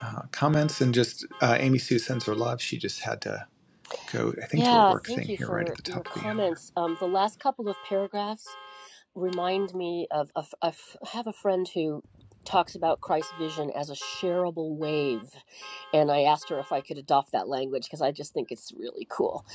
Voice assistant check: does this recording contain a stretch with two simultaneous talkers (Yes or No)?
Yes